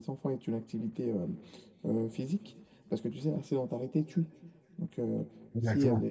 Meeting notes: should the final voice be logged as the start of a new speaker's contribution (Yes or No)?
No